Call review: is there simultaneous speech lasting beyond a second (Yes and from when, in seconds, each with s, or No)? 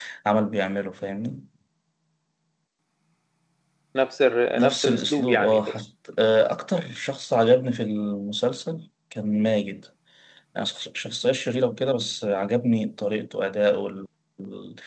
Yes, from 4.6 s